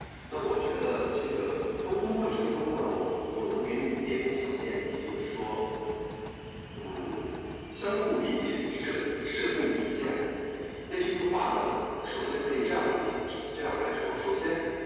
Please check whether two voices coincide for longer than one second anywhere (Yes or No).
No